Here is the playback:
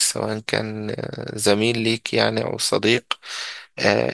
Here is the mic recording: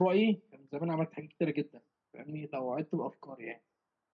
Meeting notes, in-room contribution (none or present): present